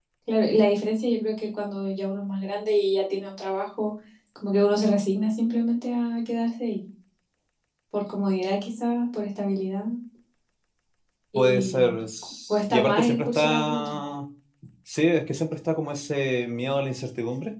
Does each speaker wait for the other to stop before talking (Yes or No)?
No